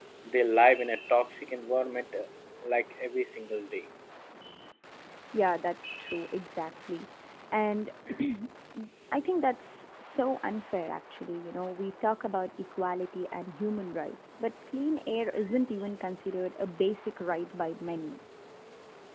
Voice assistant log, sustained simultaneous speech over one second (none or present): none